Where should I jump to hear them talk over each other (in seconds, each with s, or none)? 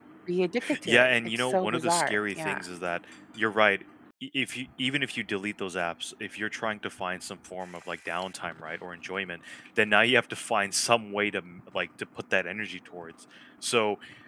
0.8 s